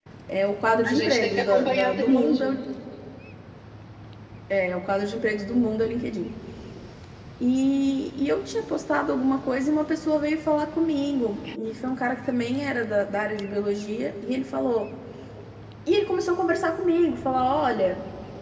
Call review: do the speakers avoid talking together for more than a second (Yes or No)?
No